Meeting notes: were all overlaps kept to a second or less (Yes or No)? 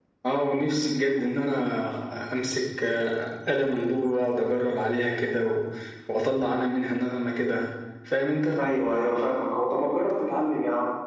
Yes